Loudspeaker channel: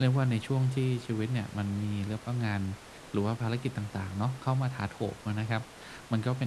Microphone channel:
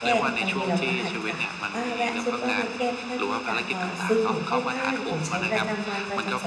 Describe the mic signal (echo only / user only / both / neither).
both